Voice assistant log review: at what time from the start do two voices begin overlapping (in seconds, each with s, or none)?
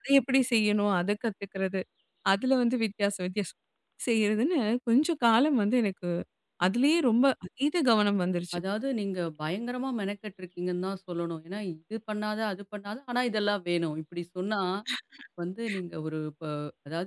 none